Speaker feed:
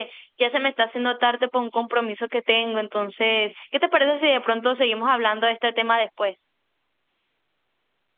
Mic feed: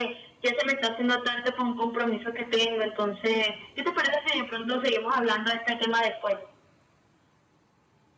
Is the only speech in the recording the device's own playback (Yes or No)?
Yes